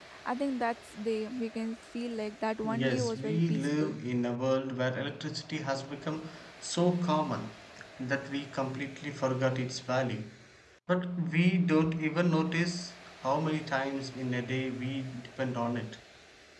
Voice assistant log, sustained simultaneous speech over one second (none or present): present